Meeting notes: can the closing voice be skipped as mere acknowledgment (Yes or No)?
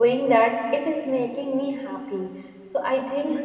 Yes